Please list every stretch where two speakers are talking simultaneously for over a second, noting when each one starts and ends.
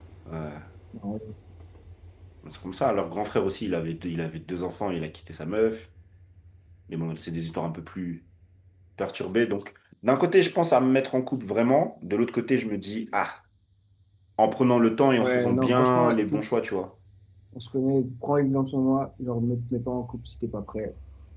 15.2-16.6

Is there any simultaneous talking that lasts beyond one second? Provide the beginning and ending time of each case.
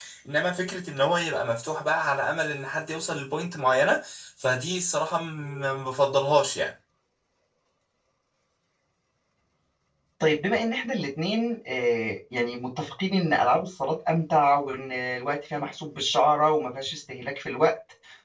none

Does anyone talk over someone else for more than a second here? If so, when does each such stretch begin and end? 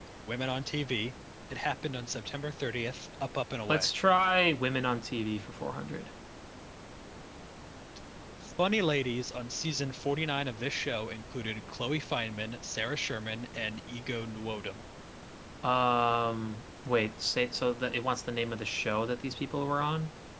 none

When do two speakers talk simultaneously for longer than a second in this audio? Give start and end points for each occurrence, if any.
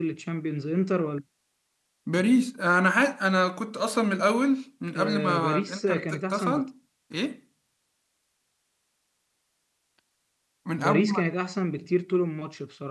5.0-6.6

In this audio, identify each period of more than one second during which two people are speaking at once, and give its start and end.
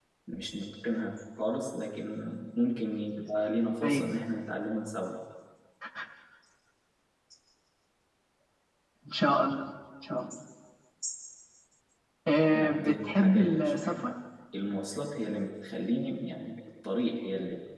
12.5-14.1

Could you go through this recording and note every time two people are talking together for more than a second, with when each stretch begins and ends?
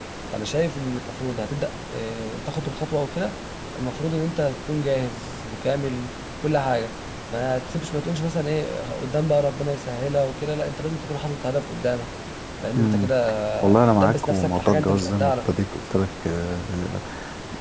13.8-15.6

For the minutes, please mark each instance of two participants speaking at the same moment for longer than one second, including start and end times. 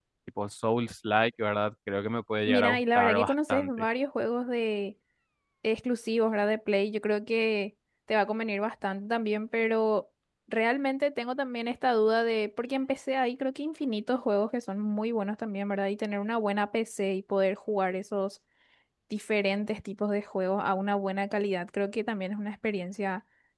2.5-3.9

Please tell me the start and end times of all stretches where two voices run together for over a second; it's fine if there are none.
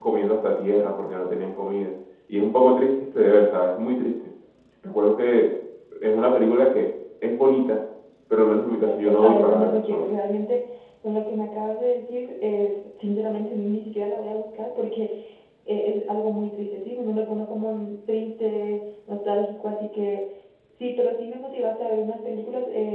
8.7-10.1

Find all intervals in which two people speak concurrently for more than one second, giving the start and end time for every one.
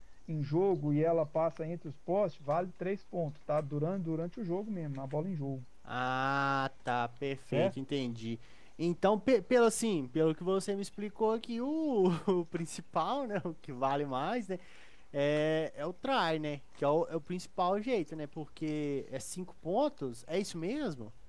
none

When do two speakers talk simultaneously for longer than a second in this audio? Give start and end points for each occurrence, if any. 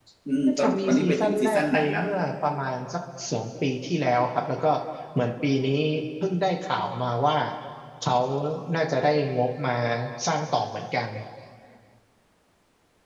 0.6-2.0

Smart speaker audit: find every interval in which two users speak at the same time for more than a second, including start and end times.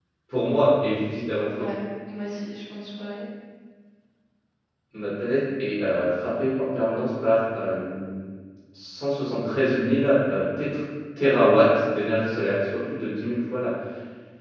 none

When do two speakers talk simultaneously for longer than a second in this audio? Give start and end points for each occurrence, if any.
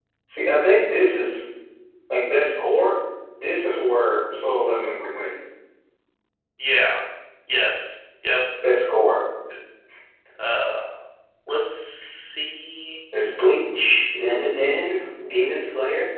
none

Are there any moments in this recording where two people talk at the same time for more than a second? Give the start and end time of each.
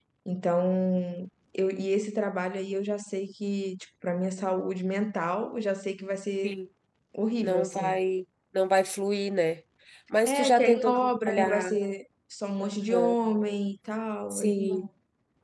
10.2-11.8

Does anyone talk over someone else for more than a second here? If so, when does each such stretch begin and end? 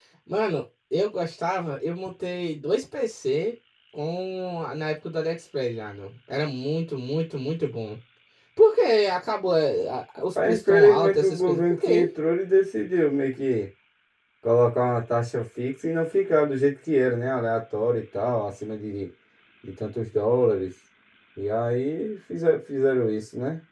10.3-12.1

